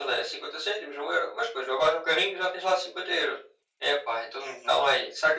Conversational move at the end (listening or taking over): listening